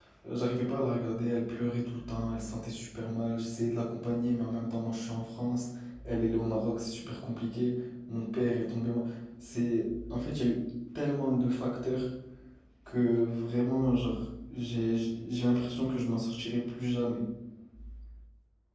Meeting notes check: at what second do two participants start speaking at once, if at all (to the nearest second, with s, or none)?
none